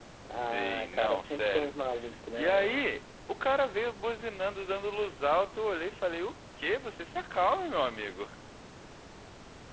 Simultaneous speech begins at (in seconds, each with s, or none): 0.5 s